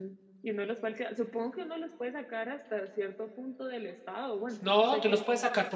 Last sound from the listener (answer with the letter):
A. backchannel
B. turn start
B